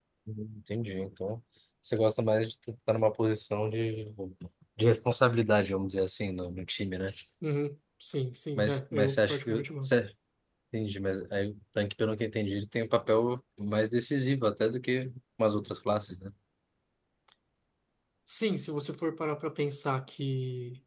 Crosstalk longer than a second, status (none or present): present